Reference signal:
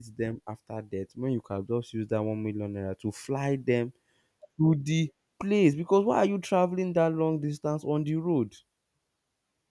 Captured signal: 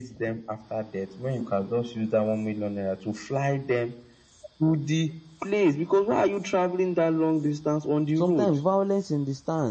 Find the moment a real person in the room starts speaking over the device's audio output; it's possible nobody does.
8 s

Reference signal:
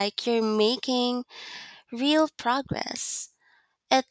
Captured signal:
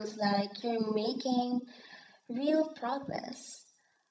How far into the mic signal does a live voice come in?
none

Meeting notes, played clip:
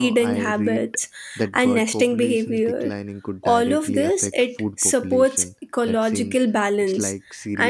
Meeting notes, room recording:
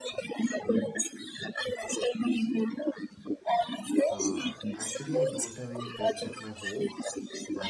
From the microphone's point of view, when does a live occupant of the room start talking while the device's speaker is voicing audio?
4 s

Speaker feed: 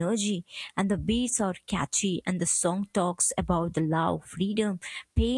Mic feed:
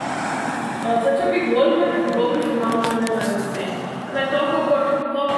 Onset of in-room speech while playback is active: 1 s

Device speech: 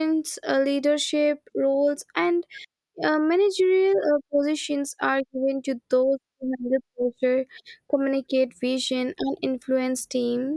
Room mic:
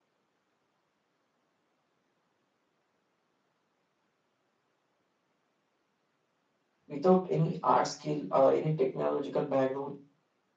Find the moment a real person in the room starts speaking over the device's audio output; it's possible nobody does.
7 s

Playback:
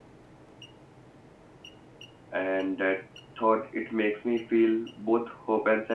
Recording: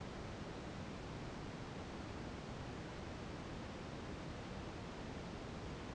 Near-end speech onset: none

